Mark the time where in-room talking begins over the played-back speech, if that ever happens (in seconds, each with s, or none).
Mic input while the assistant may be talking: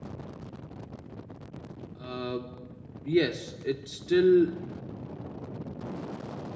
1.9 s